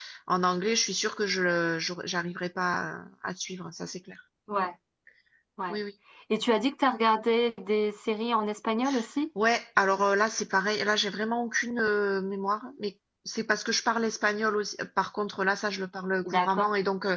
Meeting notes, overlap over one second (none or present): none